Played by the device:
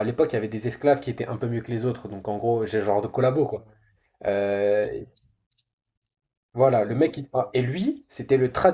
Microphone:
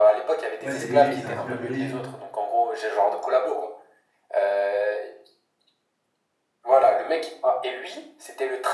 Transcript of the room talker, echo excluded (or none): Ouais, c'est léger, c'est un film un peu léger.